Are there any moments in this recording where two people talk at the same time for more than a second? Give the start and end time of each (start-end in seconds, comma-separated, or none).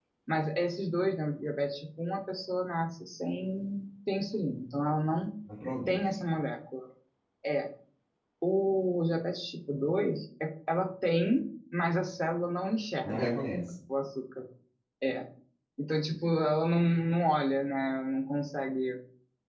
none